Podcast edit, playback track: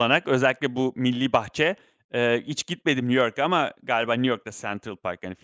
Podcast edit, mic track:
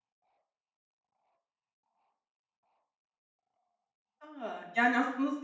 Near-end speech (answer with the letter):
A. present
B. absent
A